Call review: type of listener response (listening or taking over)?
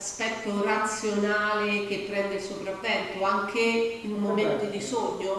listening